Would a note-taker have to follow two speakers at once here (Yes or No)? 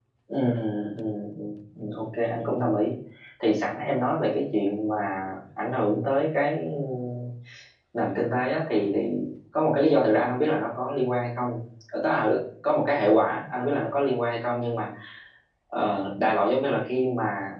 No